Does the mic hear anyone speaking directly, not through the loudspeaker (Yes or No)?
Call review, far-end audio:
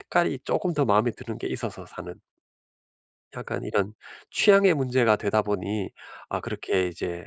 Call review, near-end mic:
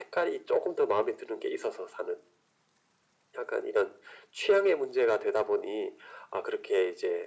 No